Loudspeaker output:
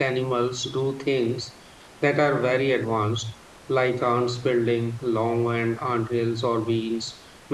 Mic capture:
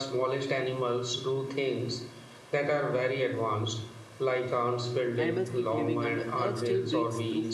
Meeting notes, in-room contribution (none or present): present